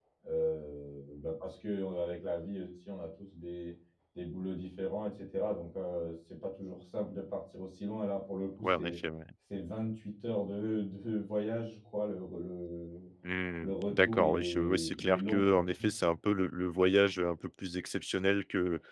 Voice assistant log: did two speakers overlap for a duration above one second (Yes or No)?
Yes